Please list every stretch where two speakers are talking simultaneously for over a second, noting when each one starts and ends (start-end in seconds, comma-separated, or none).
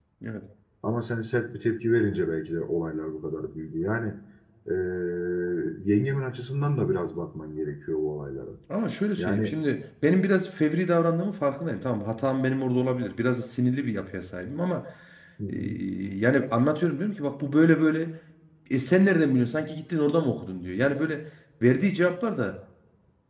none